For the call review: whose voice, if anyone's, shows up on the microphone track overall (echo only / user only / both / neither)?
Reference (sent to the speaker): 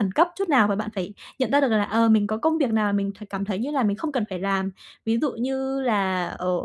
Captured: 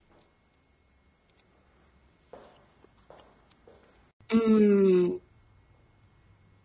user only